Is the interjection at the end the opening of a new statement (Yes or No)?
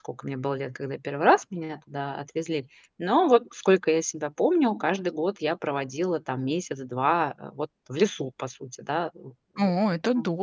Yes